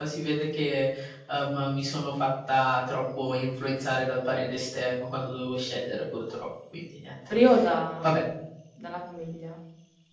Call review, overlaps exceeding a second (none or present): none